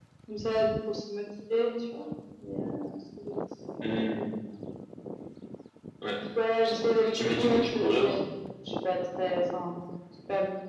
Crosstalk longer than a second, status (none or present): present